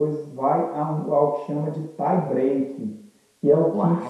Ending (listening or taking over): listening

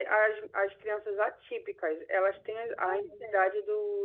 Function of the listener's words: listening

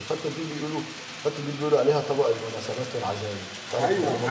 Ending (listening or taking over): taking over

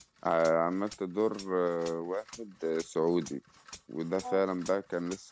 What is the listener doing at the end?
listening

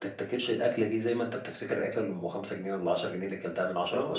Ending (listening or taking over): taking over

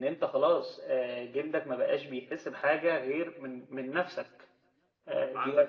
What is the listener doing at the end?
listening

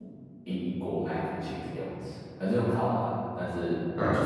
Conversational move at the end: listening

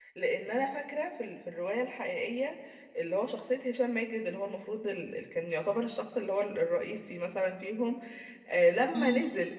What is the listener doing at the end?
listening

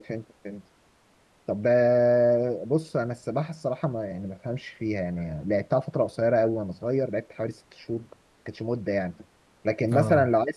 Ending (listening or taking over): listening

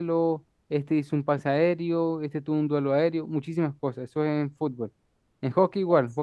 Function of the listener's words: listening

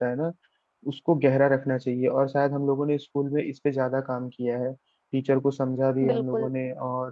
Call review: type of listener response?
listening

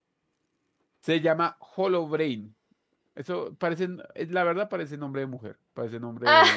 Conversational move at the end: listening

